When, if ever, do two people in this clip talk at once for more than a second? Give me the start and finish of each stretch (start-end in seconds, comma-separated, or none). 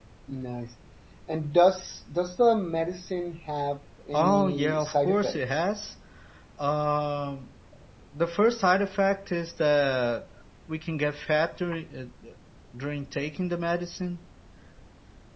4.1-5.6